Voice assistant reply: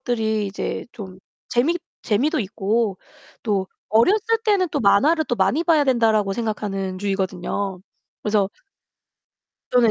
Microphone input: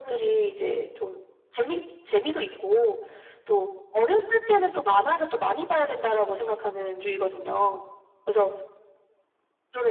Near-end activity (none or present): none